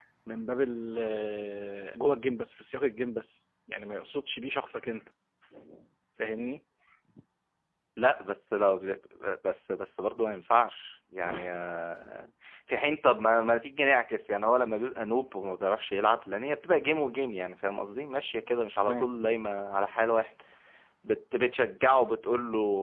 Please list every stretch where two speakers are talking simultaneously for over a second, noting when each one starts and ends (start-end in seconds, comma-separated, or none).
none